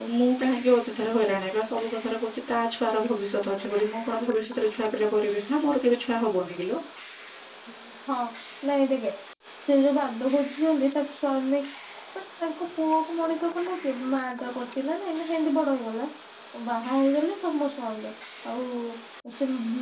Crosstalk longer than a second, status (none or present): none